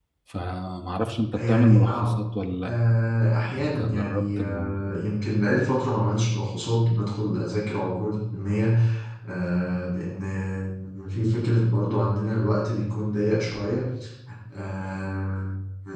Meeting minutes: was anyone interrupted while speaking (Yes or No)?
Yes